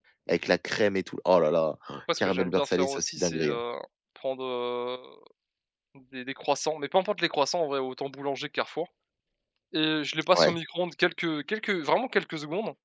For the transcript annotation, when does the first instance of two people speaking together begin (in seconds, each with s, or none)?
2.2 s